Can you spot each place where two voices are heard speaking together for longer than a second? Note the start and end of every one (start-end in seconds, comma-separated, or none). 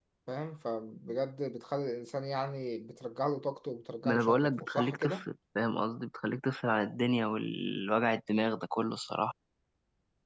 4.0-5.2